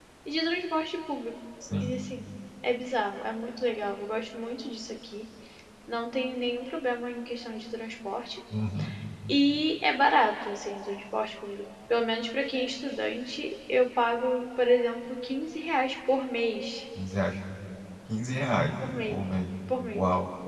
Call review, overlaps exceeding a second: none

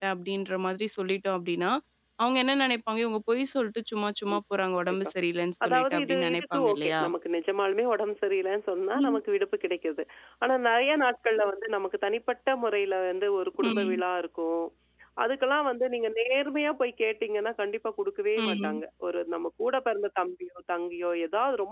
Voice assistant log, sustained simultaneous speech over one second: present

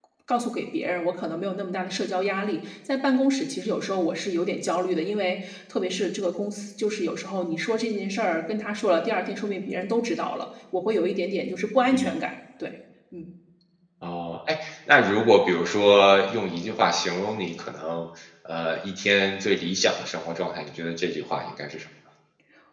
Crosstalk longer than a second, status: none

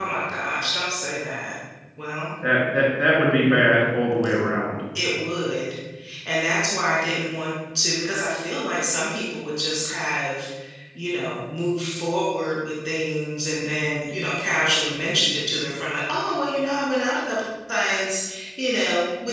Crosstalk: none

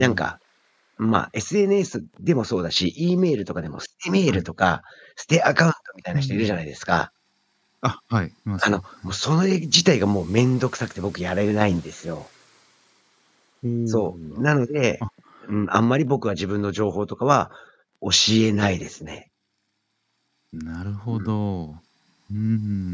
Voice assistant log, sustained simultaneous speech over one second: none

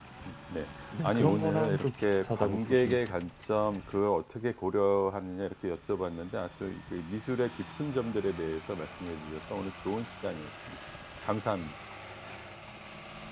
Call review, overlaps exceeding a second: present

